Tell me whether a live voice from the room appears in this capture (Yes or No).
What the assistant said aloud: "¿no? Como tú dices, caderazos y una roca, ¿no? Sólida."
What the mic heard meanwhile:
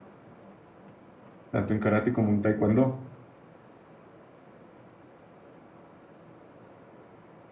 Yes